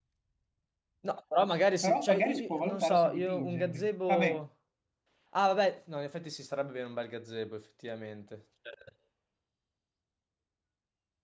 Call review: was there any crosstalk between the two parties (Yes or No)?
Yes